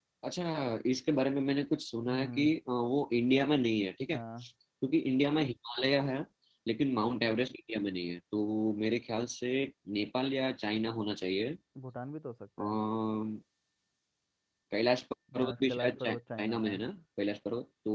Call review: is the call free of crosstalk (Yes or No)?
No